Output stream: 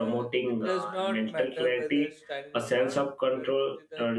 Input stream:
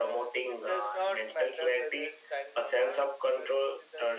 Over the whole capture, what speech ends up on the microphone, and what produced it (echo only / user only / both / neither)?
echo only